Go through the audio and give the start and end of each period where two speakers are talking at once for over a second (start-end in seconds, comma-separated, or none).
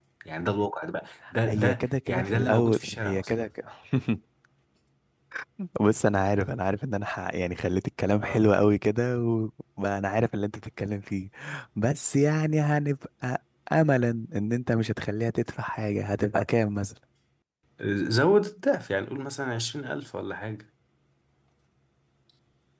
1.5-3.5